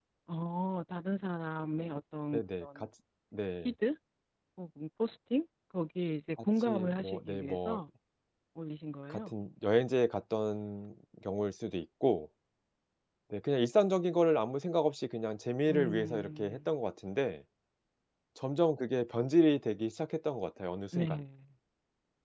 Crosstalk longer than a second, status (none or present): present